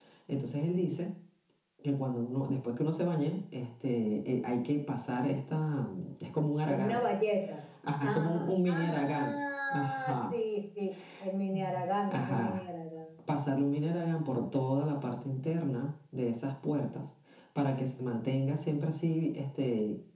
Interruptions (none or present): present